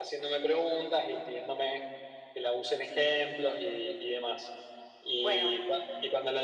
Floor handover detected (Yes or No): No